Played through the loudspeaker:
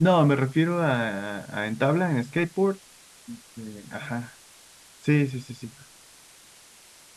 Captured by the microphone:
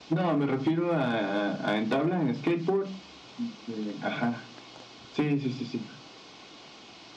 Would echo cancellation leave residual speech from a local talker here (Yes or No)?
No